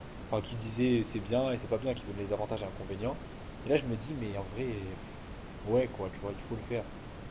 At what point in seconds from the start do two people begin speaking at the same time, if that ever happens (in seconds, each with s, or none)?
none